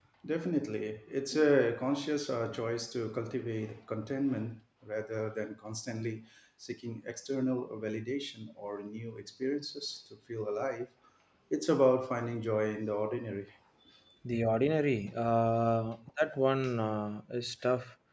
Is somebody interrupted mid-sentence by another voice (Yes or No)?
No